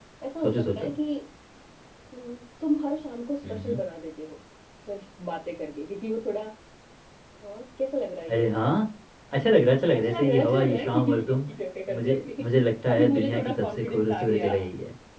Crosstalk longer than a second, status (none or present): present